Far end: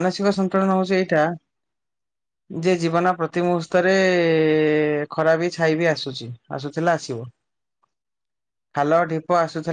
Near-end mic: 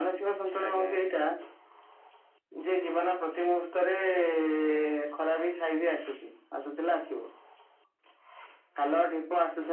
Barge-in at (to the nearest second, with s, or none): 1 s